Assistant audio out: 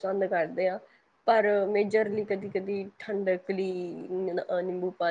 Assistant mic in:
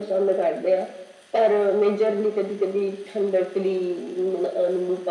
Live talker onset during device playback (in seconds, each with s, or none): none